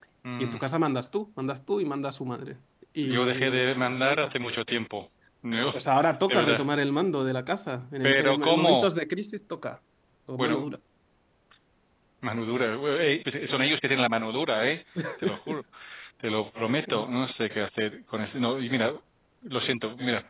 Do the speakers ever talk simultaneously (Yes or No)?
Yes